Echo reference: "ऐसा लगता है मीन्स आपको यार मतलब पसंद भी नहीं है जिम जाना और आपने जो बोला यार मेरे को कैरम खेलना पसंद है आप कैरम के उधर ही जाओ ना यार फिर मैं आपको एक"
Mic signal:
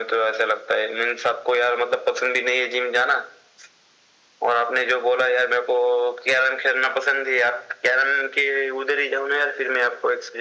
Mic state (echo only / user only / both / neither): echo only